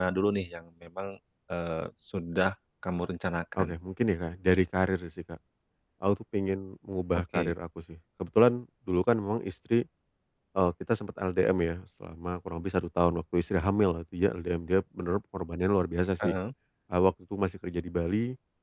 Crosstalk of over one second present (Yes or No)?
No